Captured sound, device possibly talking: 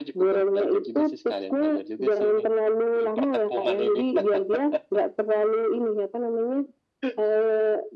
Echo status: present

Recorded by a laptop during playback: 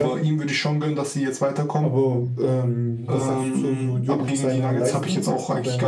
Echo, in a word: present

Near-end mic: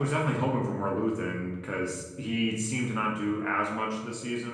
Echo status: none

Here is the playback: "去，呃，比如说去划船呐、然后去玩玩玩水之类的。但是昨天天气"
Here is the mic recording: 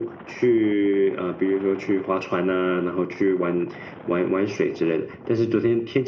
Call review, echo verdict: present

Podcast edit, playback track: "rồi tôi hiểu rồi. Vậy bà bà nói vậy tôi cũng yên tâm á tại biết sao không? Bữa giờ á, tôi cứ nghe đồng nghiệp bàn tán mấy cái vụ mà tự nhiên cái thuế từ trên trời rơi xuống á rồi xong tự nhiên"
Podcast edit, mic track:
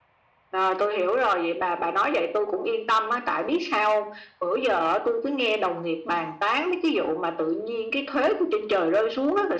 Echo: present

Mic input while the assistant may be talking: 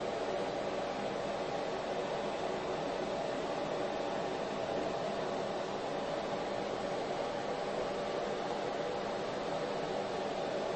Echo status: none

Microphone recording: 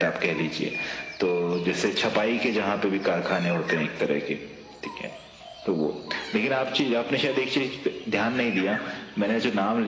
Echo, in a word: present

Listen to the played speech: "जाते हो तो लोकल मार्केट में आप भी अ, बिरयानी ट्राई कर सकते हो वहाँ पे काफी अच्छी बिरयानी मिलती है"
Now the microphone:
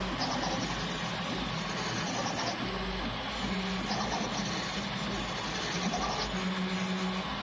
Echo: none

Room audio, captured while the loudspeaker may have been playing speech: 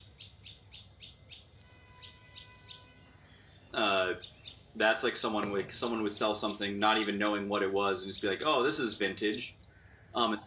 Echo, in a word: none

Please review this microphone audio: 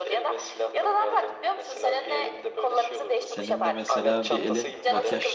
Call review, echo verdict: present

